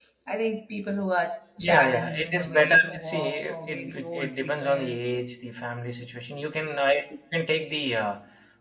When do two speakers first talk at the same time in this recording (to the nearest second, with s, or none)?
2 s